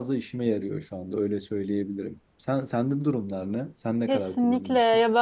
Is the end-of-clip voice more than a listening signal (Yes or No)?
Yes